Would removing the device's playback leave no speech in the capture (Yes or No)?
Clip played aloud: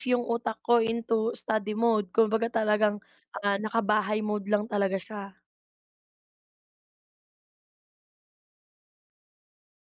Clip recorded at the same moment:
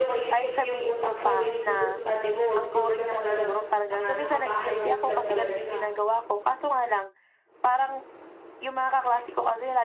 No